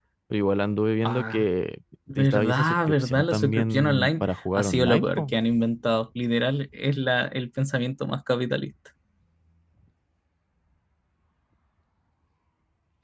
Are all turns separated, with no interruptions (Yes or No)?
No